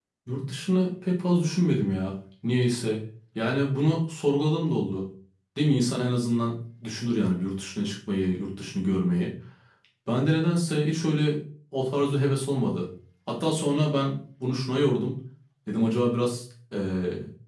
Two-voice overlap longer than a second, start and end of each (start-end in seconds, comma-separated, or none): none